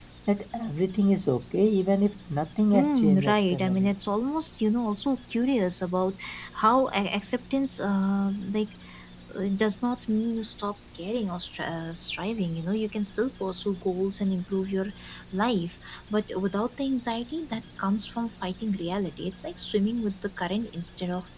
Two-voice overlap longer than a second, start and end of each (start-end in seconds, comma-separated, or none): 2.7-3.9